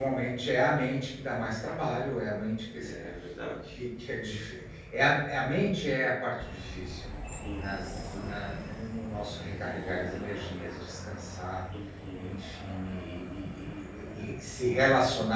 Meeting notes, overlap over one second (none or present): none